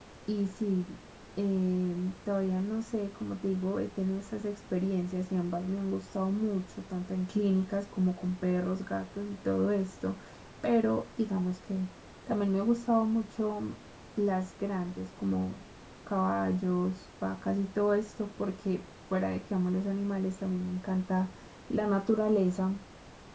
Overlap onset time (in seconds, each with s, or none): none